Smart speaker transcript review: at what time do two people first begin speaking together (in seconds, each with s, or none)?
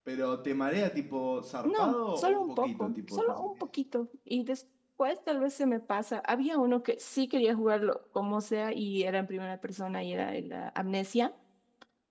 1.6 s